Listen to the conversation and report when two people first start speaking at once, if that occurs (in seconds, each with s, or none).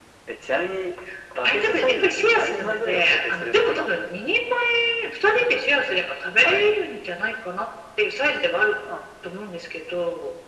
1.4 s